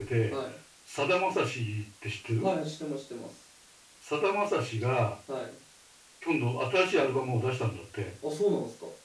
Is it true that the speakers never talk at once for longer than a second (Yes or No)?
Yes